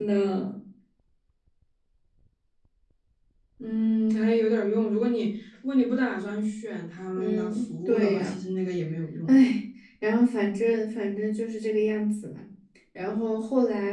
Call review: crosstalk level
present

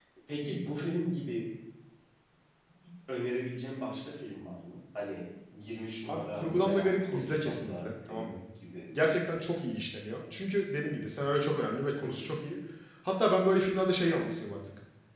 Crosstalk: present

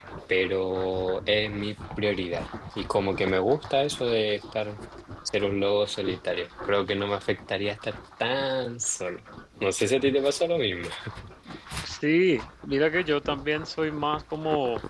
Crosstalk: none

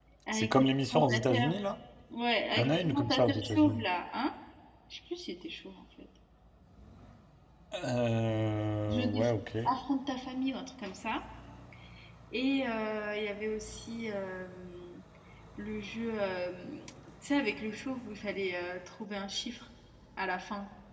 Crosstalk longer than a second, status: present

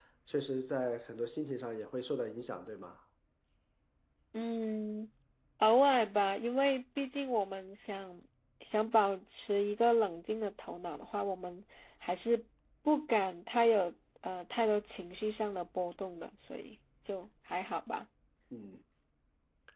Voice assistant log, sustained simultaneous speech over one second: none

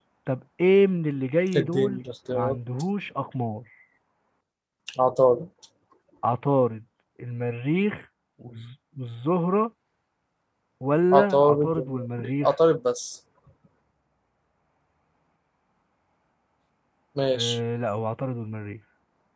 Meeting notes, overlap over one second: present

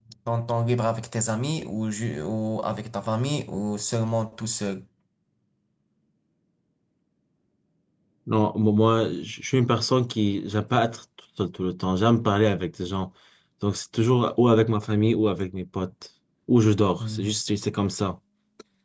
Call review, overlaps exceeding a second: none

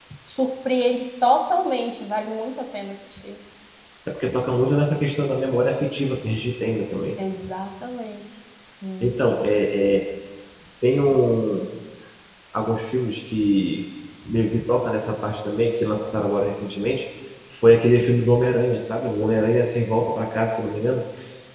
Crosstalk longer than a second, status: none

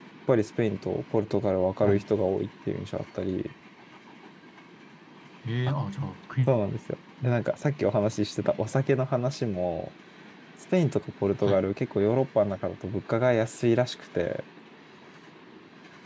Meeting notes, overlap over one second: none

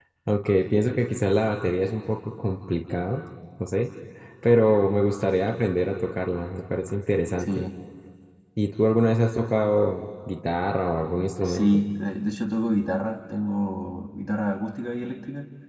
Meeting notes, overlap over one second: none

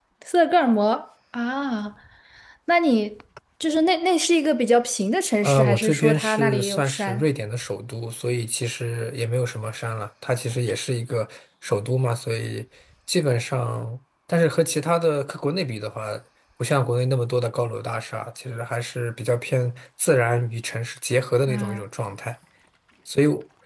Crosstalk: present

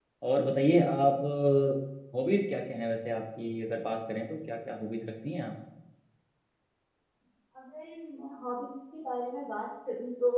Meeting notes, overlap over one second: none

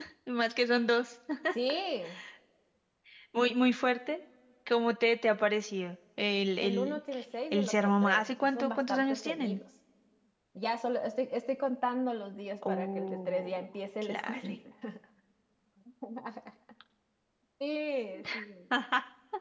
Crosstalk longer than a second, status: present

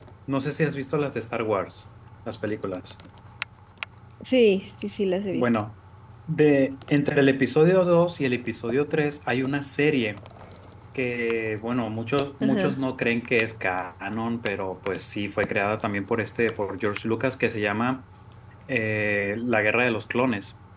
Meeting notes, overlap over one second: none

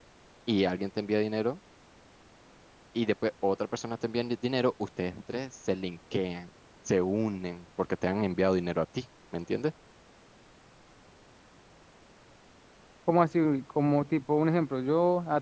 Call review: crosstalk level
none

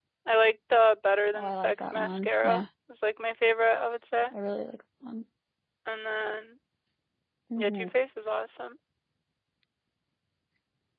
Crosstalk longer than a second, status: present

